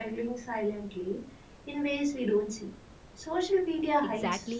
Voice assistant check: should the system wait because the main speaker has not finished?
No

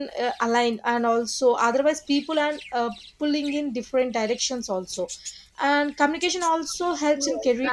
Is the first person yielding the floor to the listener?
Yes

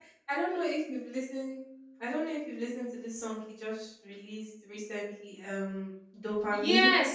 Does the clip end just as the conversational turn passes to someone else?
Yes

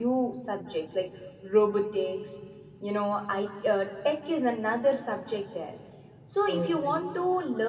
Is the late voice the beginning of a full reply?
No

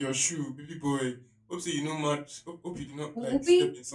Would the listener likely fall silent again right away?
No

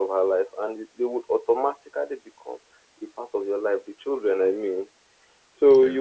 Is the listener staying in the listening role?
Yes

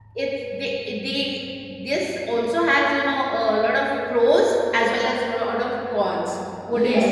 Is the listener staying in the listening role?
No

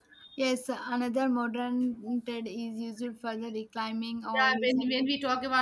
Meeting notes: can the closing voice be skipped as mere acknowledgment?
No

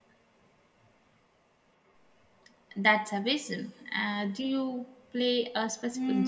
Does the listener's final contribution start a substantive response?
Yes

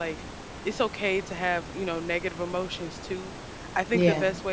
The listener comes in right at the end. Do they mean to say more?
No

